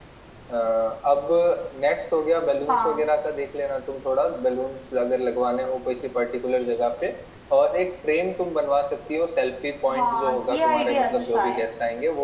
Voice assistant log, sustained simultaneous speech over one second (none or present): present